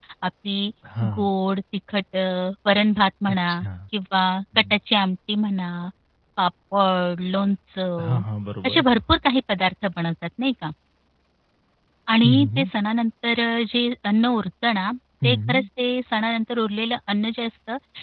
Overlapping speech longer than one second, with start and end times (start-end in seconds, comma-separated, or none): none